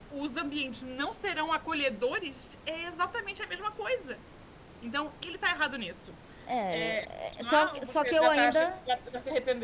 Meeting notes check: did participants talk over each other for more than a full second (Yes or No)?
Yes